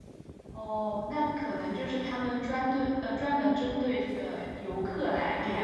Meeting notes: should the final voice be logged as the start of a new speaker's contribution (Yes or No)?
Yes